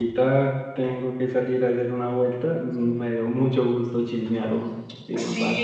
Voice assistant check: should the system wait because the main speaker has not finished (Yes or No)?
No